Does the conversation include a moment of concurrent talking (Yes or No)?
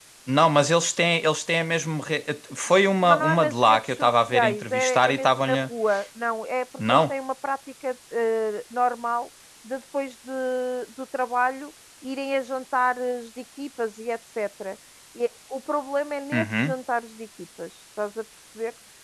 Yes